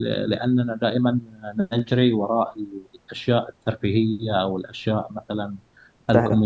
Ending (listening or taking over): listening